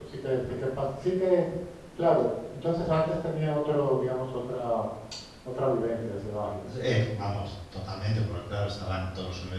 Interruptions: none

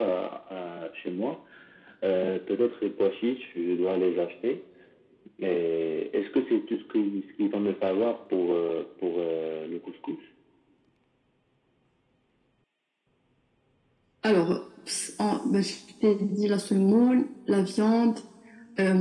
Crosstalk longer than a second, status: none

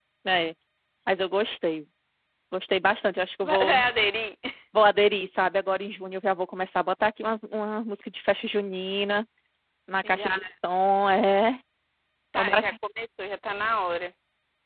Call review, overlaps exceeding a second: none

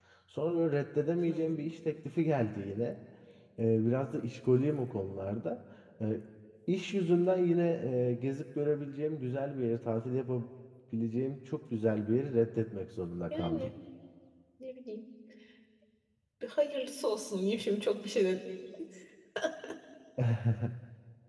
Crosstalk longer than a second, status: none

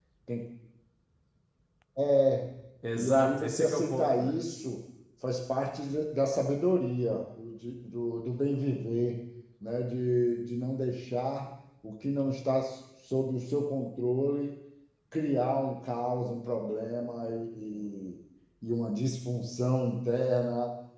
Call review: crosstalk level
present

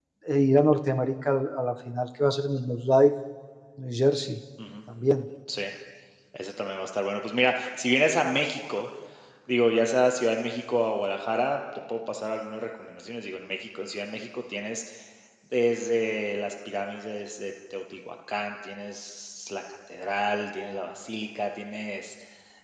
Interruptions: none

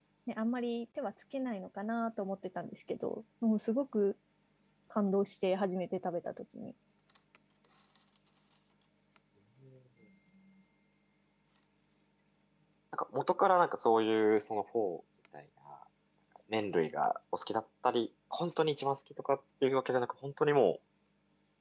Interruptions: none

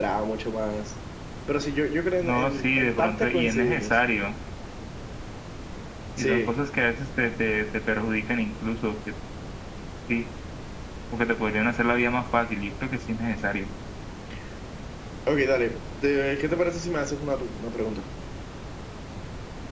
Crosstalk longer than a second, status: present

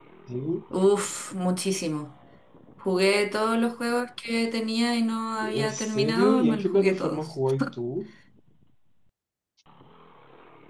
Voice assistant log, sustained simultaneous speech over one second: present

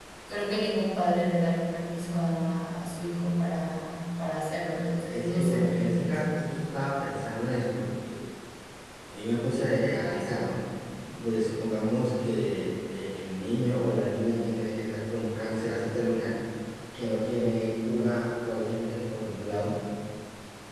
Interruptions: present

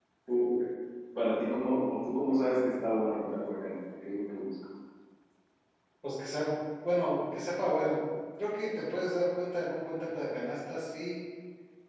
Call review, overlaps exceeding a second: none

